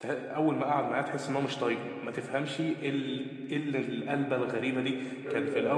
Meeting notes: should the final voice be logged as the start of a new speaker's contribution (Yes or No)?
No